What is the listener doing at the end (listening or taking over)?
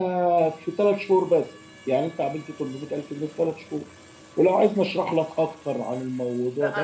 taking over